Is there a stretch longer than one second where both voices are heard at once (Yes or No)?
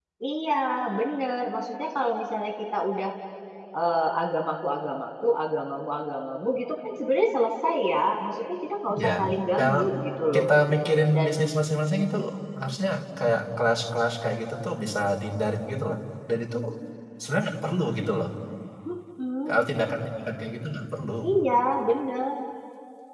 No